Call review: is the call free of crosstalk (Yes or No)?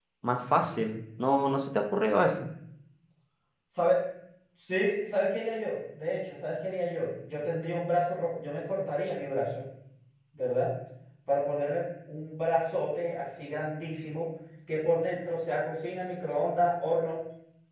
Yes